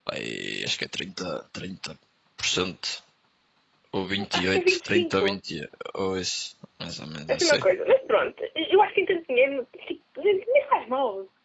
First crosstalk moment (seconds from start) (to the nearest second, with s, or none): 4 s